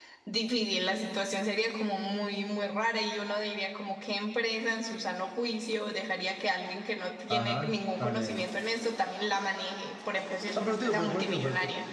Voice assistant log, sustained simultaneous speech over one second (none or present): present